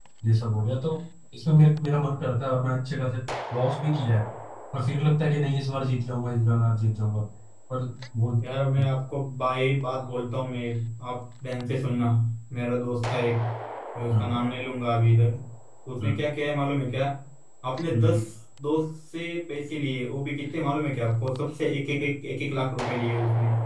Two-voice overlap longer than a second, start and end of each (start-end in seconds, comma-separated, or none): none